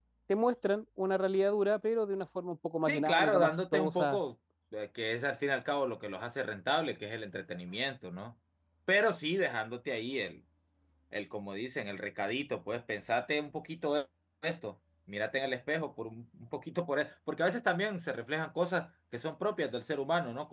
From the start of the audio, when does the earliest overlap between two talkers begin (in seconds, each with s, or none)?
2.9 s